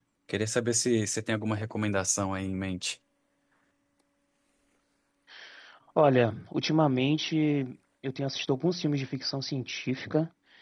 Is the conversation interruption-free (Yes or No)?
Yes